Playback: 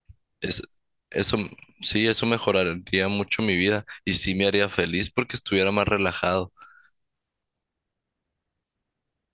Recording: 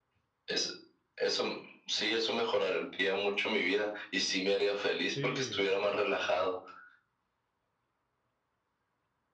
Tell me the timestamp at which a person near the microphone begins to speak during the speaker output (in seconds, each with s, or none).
5.1 s